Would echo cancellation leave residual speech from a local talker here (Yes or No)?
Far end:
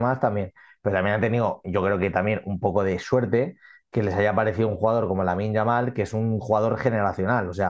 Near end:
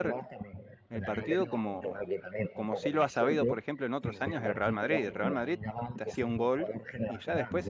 Yes